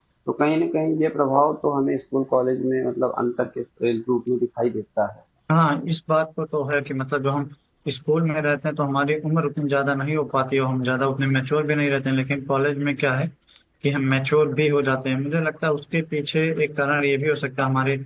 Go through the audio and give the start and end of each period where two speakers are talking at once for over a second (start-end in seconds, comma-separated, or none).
none